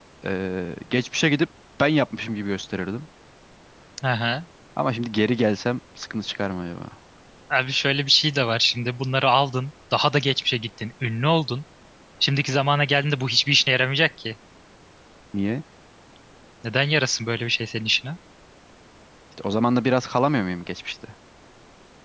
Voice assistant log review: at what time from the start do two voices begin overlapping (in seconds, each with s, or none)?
none